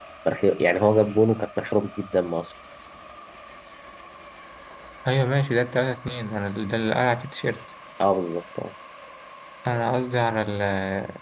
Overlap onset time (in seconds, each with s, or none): none